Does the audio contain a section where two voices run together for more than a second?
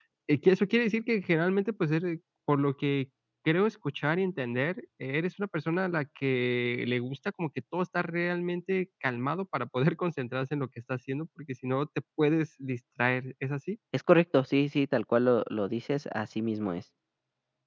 No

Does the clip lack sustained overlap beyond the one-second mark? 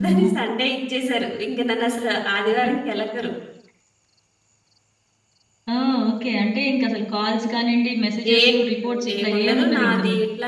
No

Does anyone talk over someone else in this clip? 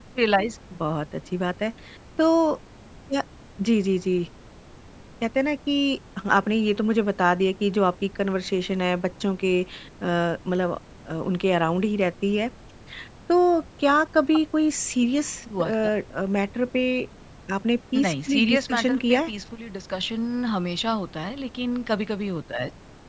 Yes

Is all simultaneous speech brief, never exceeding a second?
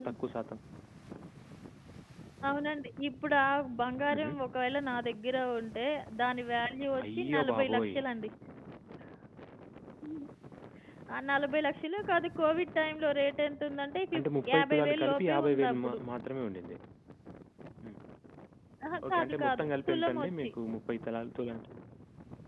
No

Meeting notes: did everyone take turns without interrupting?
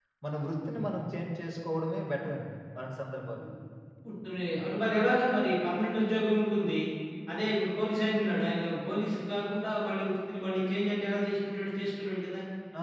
Yes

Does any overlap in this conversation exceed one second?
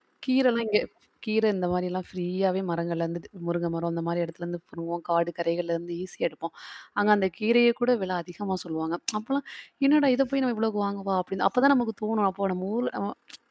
No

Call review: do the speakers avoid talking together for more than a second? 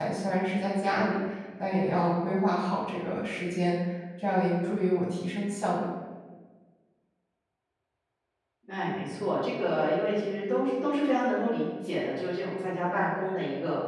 Yes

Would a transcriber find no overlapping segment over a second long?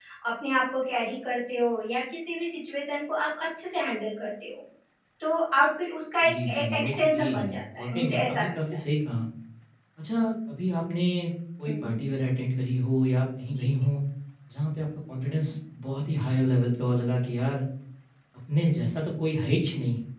No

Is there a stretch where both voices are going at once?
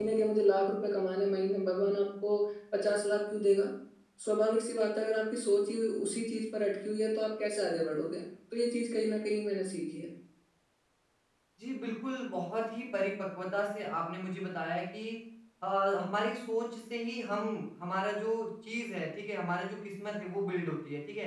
No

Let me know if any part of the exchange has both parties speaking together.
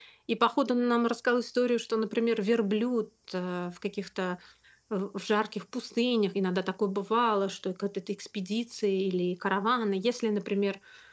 No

